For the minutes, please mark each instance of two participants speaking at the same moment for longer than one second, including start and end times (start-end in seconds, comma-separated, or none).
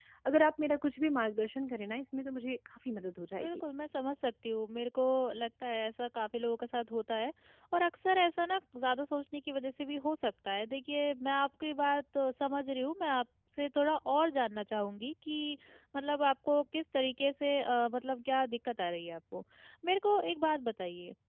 none